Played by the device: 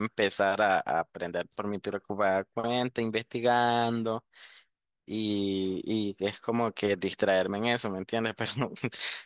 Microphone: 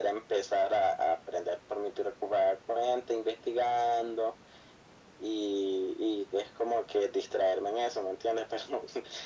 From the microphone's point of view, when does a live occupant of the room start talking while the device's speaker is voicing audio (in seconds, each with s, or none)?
none